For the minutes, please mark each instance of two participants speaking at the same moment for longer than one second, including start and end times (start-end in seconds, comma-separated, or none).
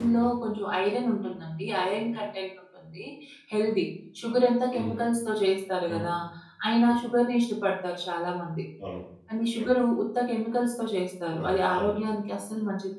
none